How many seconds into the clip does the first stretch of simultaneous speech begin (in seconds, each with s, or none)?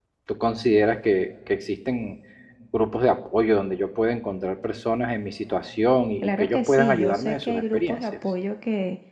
6.2 s